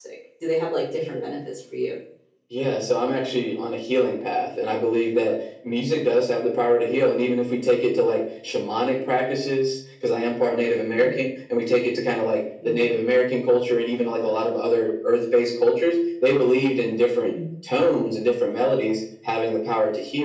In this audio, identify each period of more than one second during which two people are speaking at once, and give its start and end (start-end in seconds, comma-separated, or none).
none